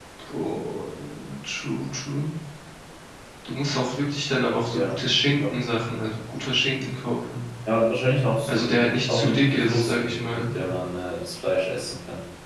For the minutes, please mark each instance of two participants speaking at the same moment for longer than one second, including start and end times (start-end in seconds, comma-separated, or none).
8.5-10.5